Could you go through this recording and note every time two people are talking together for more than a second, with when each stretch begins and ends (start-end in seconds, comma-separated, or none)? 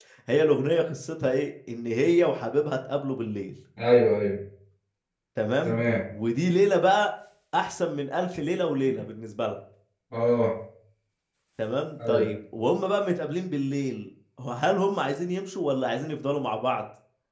none